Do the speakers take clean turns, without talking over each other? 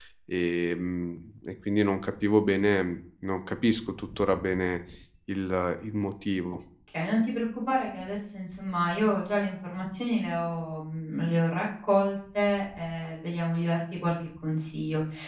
Yes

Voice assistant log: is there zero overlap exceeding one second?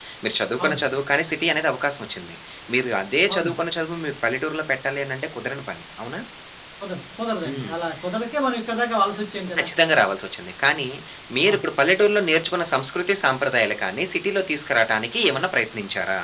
Yes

